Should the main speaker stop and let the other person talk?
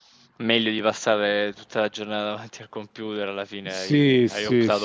Yes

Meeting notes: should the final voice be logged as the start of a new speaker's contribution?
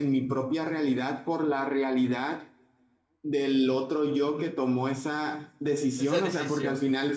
No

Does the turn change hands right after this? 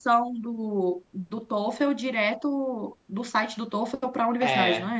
Yes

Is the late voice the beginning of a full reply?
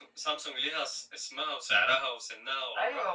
Yes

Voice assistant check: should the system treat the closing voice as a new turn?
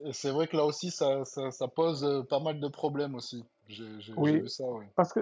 Yes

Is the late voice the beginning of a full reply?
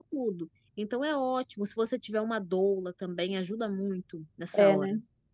Yes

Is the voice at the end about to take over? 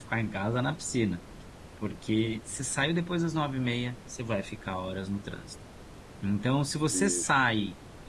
No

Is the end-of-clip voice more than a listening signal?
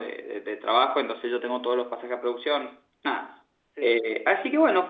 No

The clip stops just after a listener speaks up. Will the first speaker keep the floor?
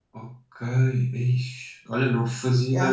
Yes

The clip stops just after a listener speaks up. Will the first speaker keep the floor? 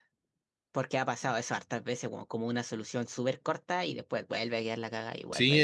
No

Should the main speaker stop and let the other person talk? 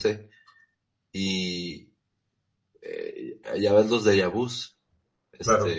No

